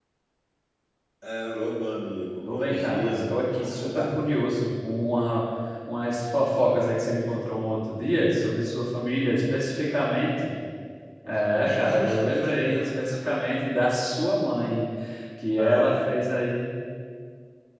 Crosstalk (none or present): present